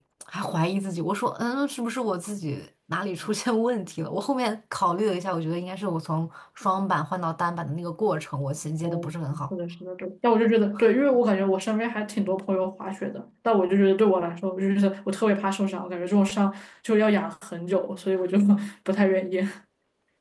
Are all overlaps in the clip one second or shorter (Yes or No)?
Yes